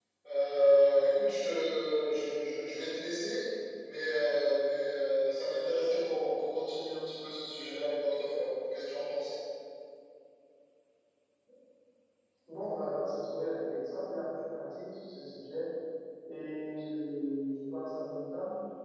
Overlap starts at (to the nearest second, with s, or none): none